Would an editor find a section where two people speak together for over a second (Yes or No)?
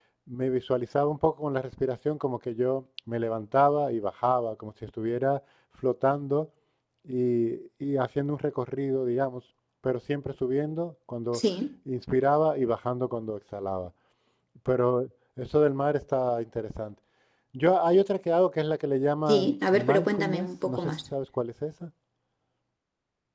Yes